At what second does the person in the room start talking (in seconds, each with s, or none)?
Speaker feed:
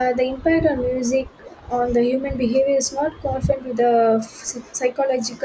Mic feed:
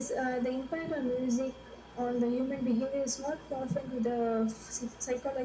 none